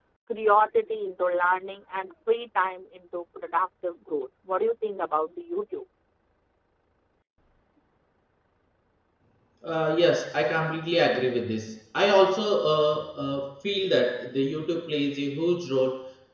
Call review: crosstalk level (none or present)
none